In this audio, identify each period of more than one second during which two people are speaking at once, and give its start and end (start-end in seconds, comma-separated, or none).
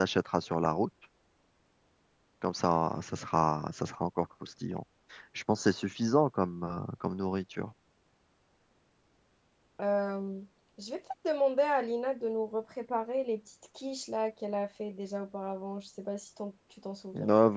none